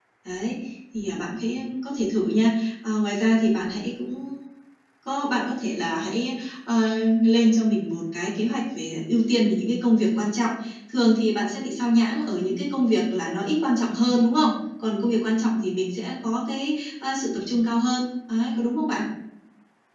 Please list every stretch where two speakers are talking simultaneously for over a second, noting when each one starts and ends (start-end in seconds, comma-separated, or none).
none